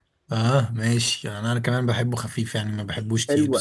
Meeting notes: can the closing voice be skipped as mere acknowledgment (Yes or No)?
No